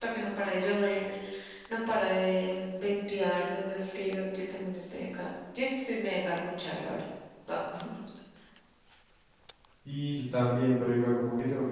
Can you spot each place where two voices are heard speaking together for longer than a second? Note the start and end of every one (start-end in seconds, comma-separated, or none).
none